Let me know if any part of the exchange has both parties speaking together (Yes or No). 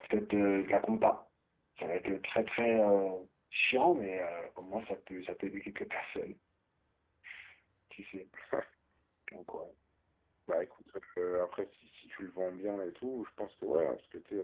No